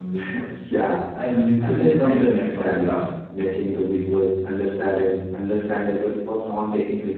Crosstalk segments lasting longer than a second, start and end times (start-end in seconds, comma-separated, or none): 1.6-3.1